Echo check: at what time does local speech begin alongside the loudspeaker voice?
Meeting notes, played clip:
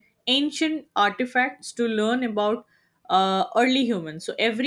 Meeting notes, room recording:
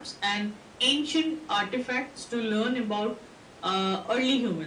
none

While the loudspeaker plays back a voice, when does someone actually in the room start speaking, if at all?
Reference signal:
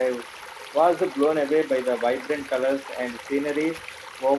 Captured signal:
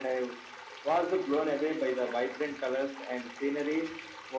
none

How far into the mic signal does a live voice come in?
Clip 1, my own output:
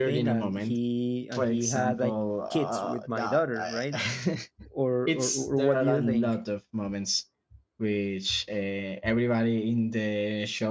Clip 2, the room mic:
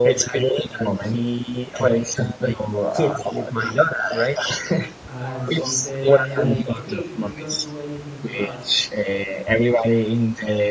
5.1 s

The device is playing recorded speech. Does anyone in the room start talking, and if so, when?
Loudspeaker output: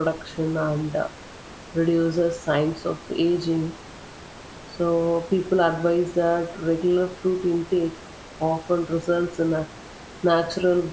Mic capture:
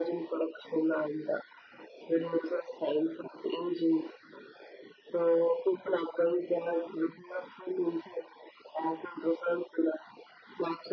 none

